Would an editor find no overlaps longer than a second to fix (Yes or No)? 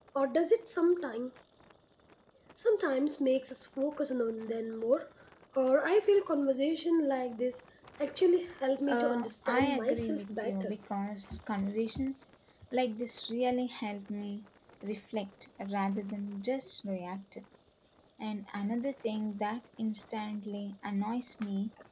No